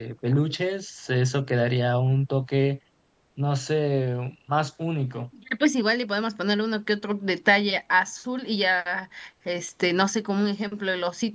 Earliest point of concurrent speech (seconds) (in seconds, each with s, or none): none